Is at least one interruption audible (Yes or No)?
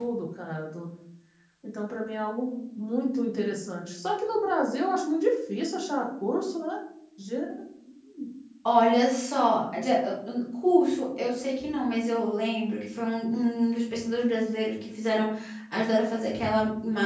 No